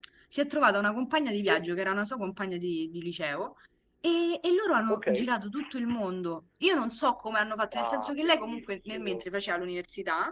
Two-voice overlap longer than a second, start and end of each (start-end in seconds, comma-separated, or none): 7.7-9.3